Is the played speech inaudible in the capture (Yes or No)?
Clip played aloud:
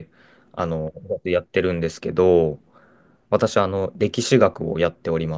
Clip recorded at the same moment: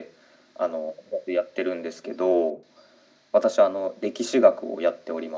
No